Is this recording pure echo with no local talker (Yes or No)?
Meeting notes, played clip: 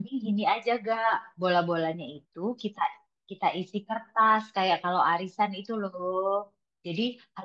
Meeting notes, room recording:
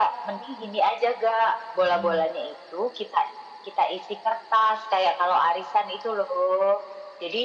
No